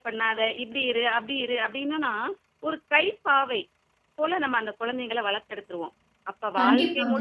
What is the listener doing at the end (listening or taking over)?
listening